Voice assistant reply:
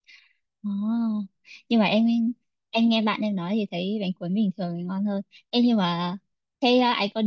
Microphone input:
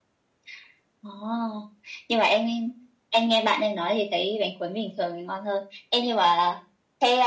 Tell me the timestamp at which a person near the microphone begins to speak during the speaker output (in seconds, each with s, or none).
none